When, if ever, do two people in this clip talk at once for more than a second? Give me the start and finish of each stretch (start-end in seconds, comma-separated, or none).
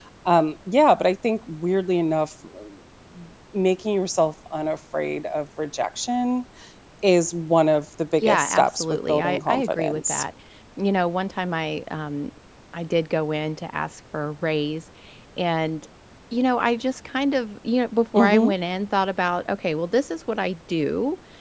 8.2-10.2